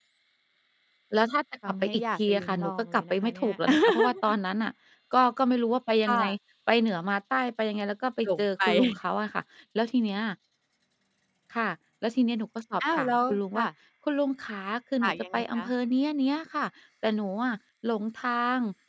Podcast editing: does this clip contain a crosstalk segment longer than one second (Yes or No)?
Yes